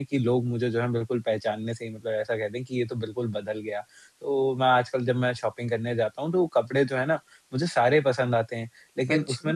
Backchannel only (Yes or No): Yes